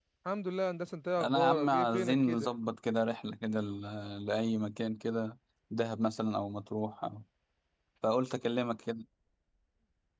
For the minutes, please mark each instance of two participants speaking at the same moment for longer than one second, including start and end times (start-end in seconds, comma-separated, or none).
1.2-2.6